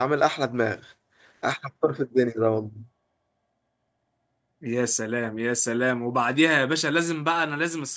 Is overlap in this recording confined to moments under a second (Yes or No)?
Yes